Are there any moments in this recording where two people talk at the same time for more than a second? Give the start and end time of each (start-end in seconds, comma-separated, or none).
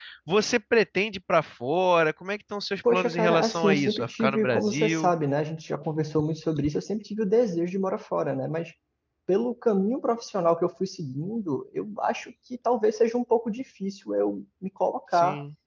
2.9-5.1